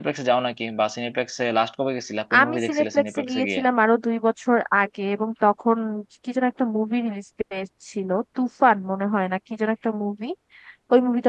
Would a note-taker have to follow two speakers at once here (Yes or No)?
Yes